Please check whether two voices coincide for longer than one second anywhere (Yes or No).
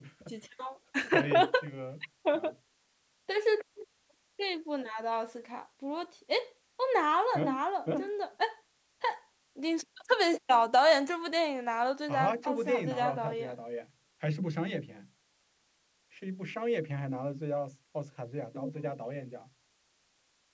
Yes